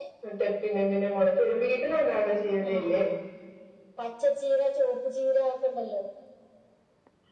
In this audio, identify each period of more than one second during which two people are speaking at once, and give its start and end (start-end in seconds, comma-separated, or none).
none